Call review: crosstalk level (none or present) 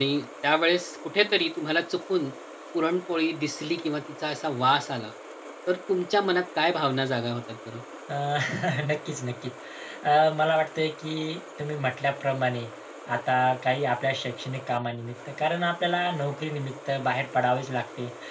none